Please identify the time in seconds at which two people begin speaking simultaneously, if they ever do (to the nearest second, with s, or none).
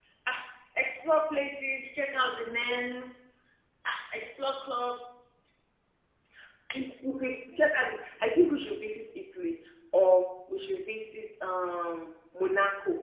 none